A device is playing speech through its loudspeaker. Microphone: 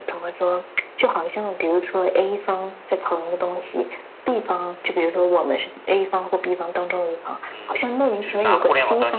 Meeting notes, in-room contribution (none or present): present